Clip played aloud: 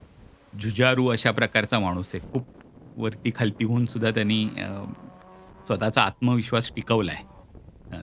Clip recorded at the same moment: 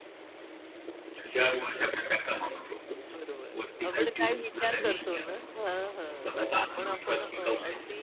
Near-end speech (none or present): present